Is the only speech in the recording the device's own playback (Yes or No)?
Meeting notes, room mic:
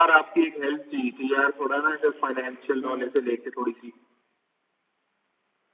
No